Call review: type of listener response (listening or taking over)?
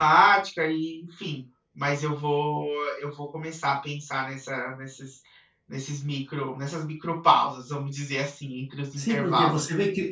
taking over